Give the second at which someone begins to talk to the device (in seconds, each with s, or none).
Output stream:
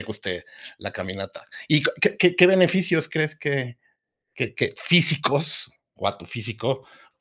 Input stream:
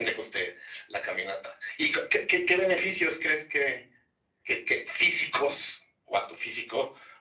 none